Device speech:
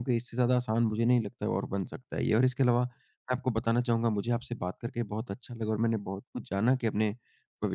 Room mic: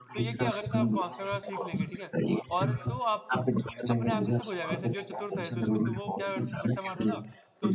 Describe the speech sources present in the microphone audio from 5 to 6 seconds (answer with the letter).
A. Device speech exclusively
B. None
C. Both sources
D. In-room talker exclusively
C